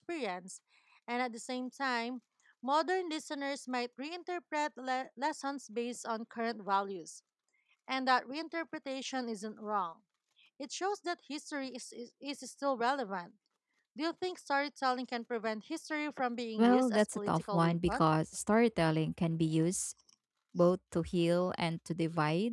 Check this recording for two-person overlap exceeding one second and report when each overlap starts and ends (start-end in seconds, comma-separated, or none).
16.6-18.1